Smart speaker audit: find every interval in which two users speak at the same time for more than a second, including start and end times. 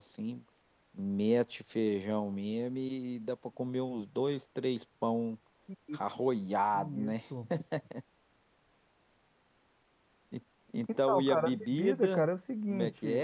11.1-12.3

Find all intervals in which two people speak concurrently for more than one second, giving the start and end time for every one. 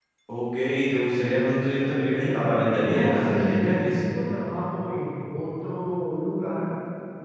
2.8-4.0

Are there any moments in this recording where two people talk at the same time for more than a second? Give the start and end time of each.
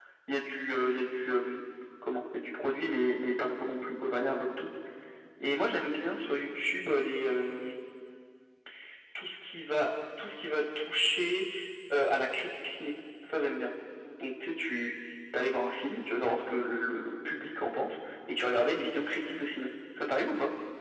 none

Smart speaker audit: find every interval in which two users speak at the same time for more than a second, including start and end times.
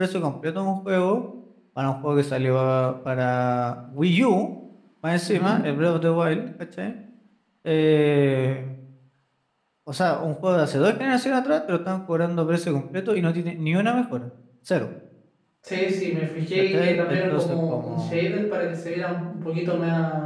16.7-18.2

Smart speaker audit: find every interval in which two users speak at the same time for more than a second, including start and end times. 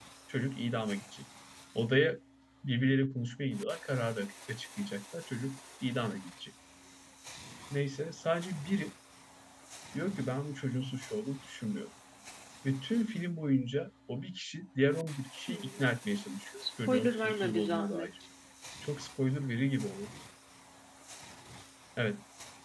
16.9-18.1

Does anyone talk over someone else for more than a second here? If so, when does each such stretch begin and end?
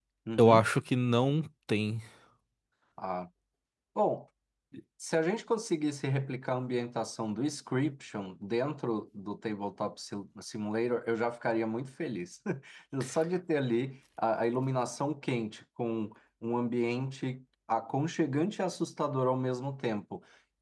none

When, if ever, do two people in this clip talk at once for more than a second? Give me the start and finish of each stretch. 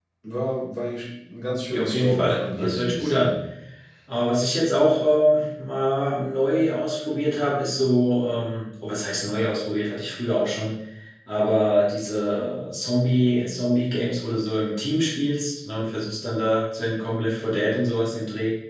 1.7-3.3

